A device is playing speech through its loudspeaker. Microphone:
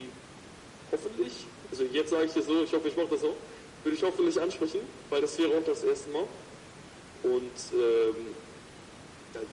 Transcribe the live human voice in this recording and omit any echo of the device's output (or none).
none